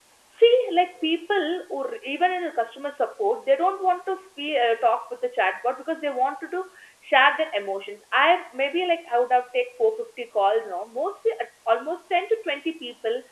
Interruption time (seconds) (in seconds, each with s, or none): none